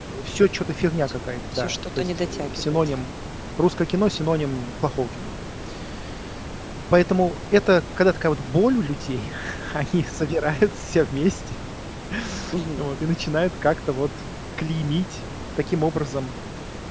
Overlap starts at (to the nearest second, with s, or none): 2 s